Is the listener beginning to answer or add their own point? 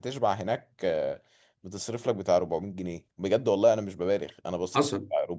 Yes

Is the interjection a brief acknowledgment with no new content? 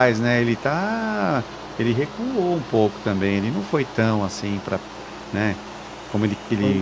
Yes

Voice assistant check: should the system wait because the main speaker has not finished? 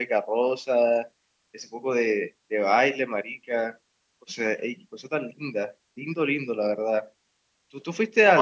Yes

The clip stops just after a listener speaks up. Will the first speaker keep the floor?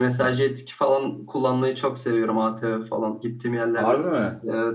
No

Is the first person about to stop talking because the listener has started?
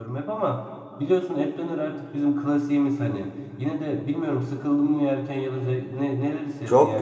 Yes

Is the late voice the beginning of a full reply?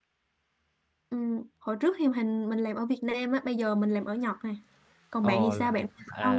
Yes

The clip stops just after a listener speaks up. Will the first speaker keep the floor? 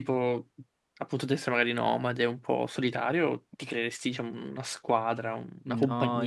No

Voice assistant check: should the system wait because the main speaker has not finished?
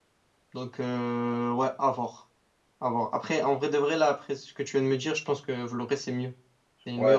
No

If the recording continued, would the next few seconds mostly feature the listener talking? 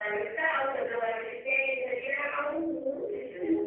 Yes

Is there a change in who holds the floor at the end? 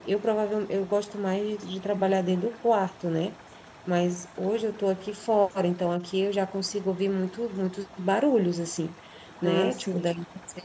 No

